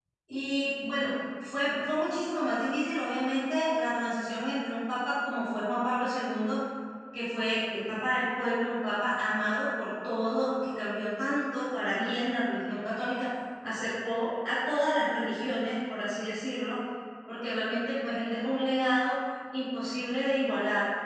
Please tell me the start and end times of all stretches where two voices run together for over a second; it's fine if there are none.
none

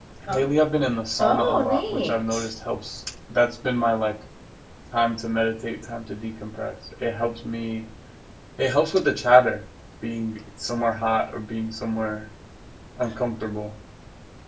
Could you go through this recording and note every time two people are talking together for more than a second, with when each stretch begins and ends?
1.2-2.5

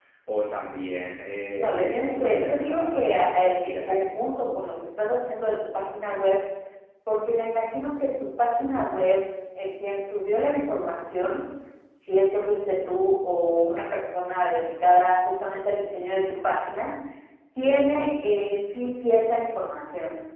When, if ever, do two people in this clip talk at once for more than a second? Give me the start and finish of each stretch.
1.6-4.1

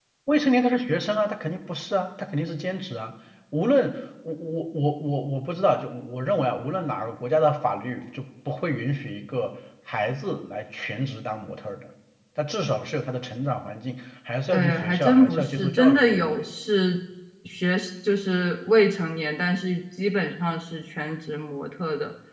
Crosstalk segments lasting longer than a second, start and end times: 14.5-16.4

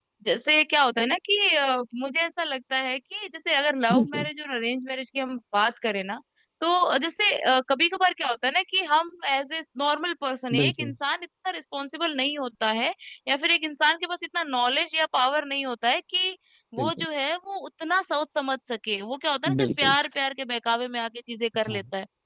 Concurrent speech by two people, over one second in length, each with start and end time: none

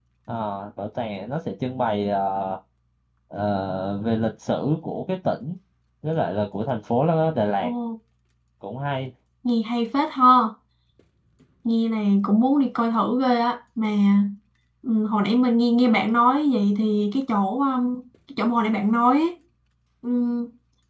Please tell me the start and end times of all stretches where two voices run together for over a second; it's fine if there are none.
none

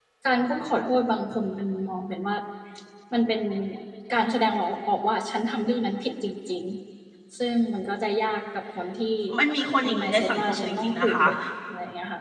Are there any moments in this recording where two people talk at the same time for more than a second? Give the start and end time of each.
9.9-11.2

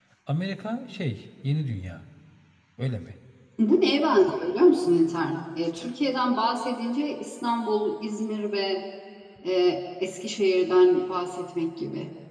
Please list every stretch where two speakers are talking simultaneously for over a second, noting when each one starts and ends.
none

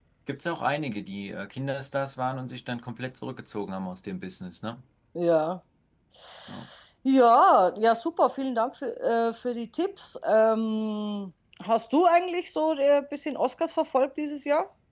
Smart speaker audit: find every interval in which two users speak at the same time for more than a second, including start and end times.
none

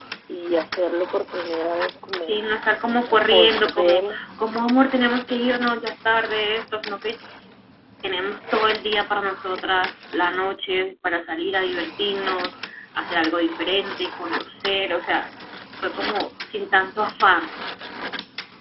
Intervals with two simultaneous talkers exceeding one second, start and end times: 2.9-4.2

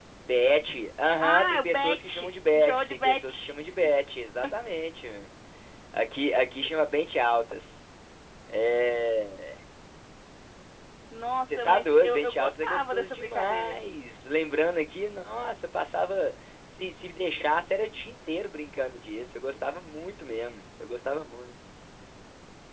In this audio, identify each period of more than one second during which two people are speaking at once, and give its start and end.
1.2-3.5, 11.5-13.8

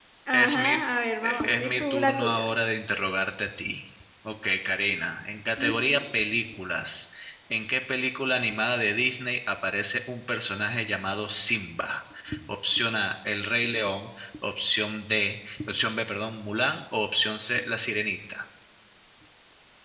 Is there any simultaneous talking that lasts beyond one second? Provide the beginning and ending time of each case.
1.2-2.5

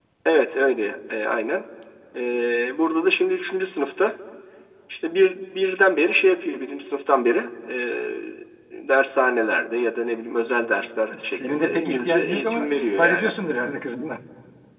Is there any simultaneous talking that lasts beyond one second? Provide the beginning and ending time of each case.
11.2-13.3

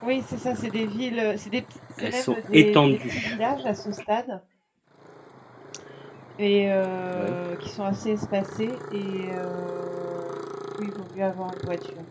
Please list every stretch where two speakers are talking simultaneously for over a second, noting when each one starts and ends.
2.0-3.4

